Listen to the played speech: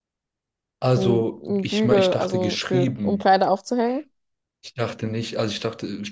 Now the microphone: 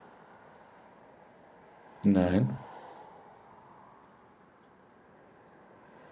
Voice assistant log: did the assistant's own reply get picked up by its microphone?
No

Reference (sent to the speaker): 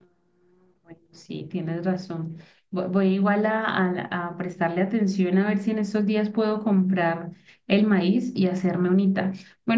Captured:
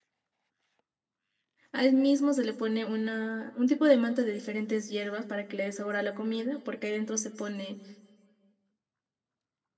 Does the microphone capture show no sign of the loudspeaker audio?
Yes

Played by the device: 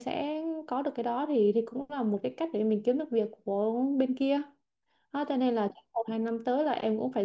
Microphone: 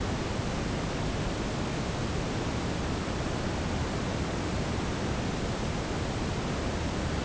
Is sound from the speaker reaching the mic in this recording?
No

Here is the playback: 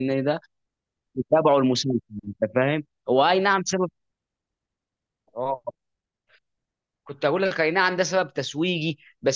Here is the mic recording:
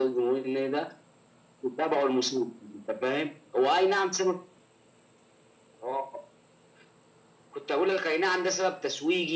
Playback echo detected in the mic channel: Yes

